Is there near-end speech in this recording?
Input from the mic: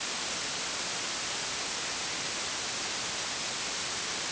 No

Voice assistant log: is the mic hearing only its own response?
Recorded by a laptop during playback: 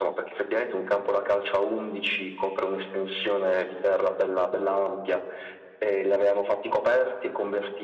Yes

